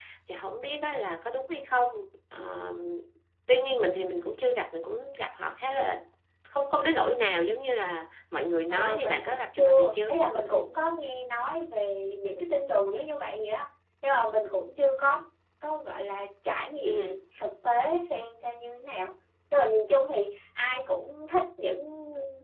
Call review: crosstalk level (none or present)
present